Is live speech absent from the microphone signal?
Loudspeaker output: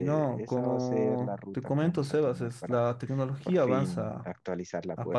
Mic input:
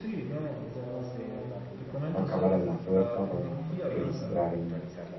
No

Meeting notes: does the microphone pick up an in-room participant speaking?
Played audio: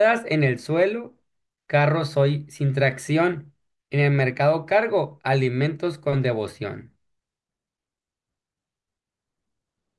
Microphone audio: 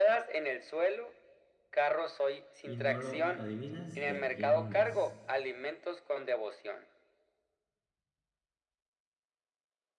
Yes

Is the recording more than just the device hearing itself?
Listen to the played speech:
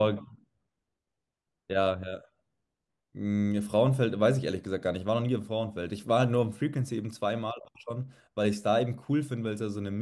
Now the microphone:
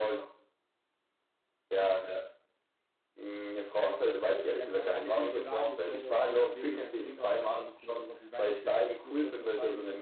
Yes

